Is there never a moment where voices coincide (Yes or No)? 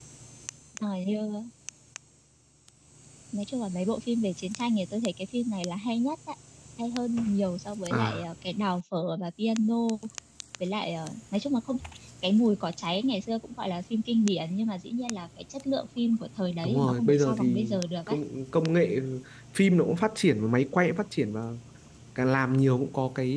No